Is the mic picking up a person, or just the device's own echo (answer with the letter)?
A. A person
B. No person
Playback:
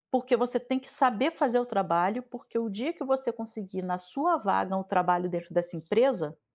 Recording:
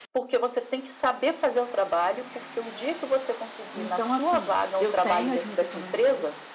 A